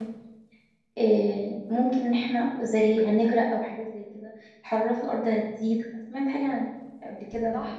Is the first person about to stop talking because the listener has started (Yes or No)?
Yes